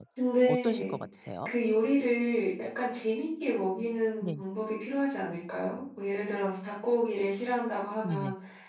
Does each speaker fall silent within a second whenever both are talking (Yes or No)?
Yes